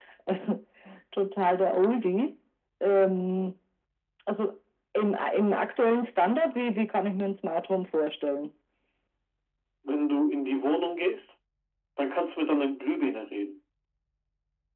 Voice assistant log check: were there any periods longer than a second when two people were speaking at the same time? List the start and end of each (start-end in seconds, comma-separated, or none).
none